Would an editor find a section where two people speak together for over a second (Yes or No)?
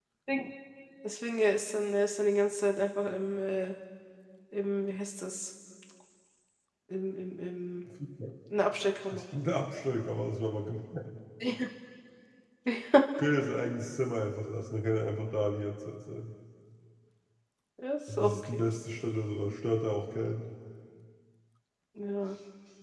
No